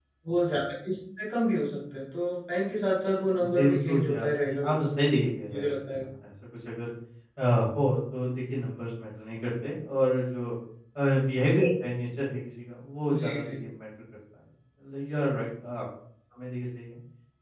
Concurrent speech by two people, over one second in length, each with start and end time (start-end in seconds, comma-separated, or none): 3.6-4.8